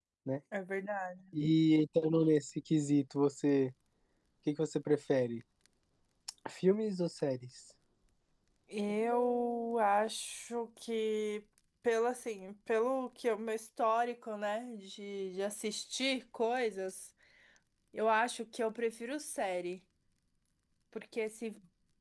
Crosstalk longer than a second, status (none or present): none